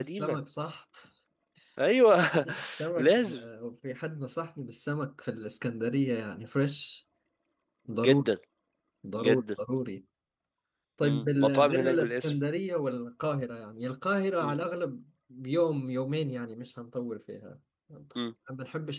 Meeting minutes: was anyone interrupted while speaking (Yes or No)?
Yes